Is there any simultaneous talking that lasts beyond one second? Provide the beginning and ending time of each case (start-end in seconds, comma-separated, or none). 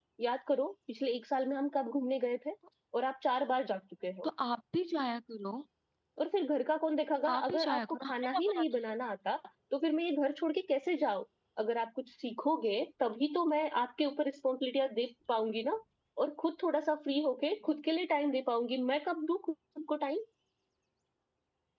7.3-8.6